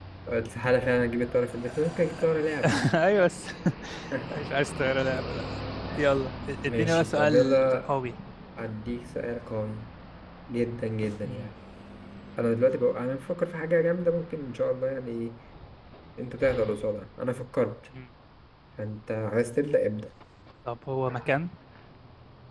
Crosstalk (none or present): present